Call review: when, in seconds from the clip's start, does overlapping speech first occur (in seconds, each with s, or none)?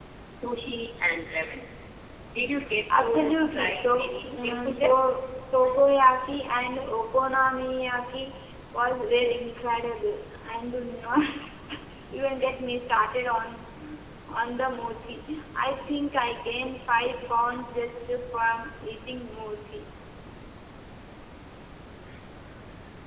3.0 s